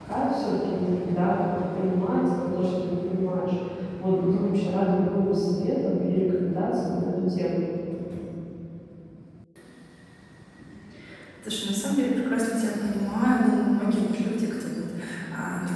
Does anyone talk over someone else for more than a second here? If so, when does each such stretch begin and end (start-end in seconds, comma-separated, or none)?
none